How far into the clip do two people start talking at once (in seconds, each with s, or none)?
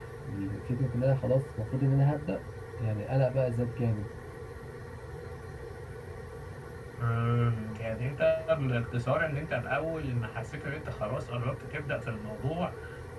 none